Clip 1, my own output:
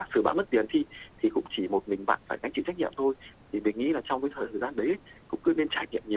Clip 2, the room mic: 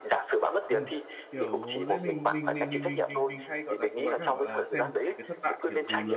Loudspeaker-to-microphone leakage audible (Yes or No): Yes